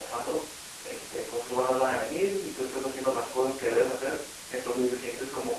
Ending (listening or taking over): listening